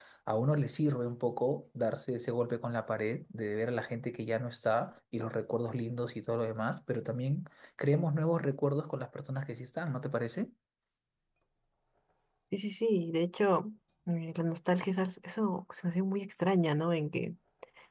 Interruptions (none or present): none